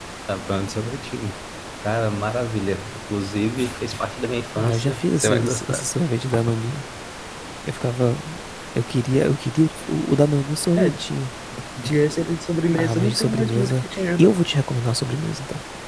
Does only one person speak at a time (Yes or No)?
No